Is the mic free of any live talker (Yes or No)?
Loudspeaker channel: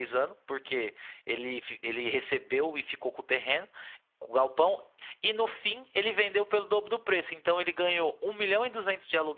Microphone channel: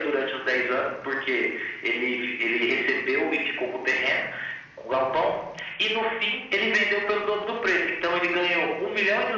Yes